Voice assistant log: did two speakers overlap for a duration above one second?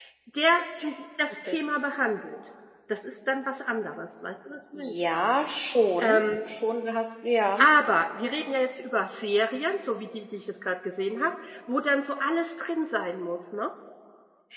No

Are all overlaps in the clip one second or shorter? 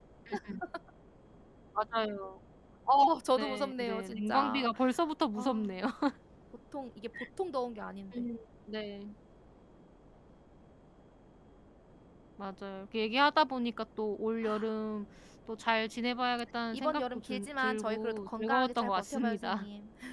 No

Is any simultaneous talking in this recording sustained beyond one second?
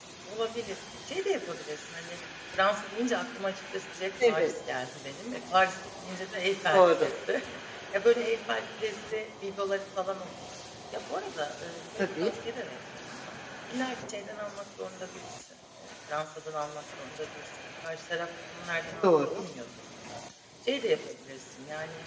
No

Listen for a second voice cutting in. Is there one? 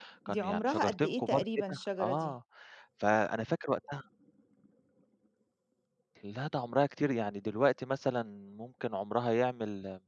Yes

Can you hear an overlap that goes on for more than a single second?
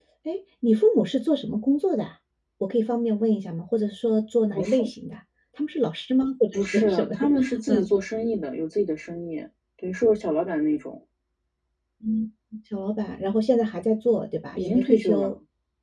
Yes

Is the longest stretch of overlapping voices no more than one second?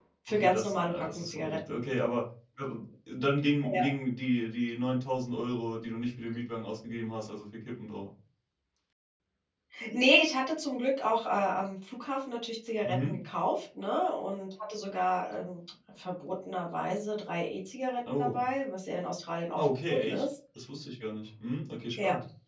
No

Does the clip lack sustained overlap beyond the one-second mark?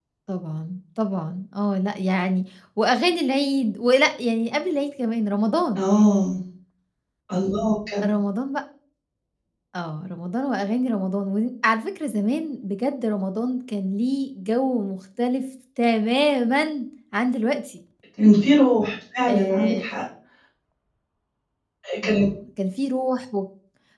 Yes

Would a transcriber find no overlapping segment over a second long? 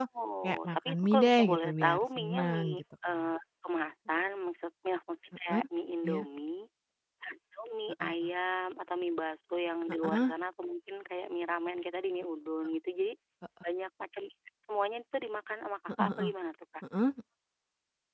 No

